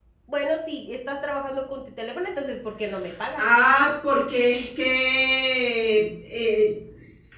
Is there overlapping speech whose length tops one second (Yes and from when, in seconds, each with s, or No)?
No